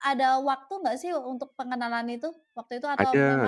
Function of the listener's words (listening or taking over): taking over